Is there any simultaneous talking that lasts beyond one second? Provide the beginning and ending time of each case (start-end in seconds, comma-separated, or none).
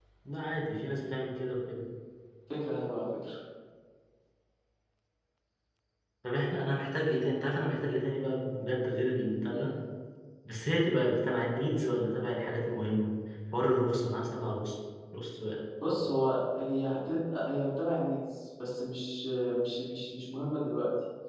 none